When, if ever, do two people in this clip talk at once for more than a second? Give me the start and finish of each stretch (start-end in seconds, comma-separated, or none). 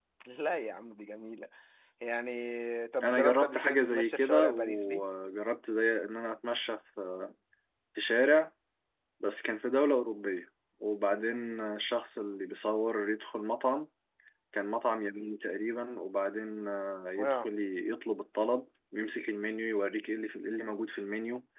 3.0-5.0